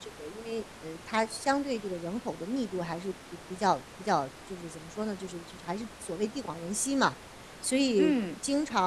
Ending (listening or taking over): listening